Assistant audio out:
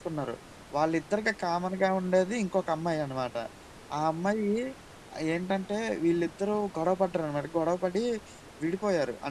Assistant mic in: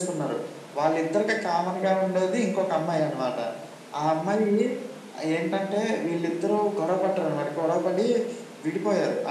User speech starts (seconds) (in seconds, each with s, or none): none